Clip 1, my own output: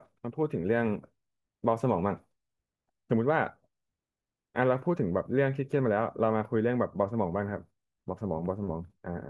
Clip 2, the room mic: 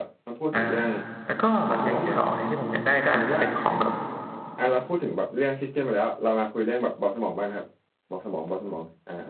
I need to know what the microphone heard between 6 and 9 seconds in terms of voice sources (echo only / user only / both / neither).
echo only